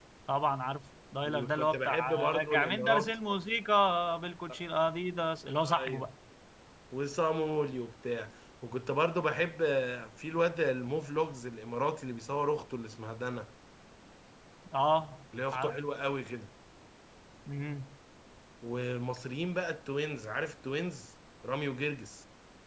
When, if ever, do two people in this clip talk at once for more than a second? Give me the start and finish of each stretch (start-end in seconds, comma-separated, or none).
1.2-3.1